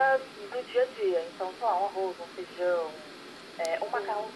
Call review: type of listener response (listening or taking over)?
listening